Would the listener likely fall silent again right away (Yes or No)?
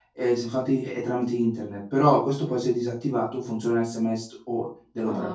No